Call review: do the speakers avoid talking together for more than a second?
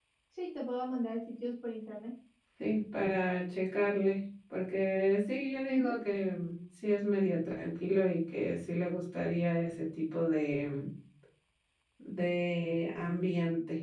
Yes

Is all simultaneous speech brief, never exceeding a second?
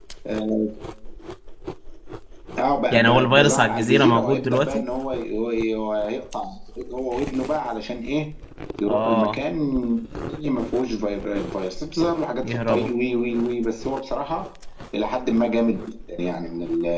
No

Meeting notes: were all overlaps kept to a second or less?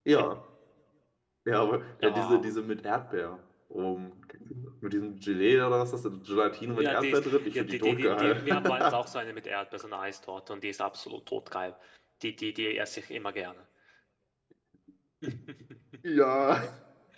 No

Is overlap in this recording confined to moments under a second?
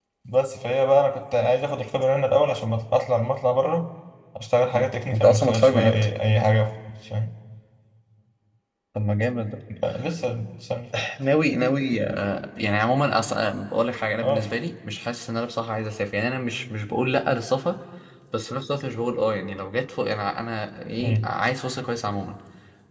No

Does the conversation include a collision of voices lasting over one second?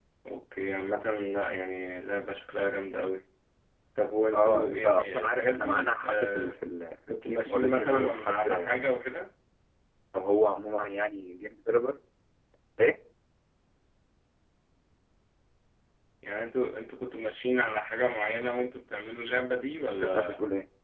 Yes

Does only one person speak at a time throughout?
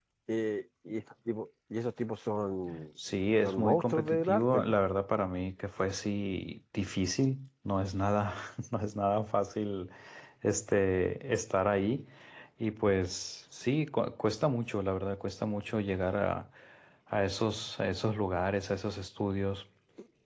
No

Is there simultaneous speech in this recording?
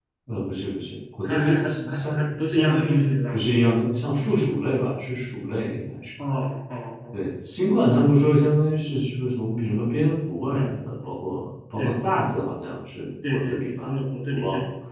Yes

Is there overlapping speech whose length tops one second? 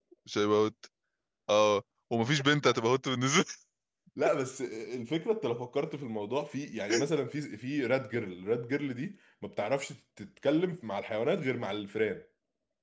No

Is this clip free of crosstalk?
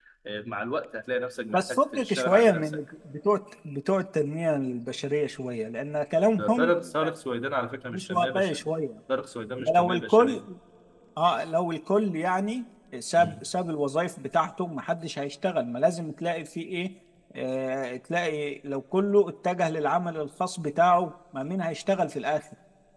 No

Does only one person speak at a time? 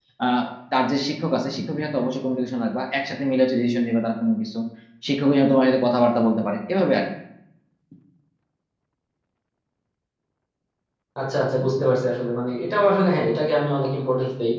Yes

